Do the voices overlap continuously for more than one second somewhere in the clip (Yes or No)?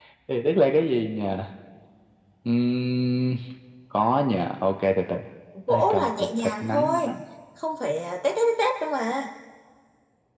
Yes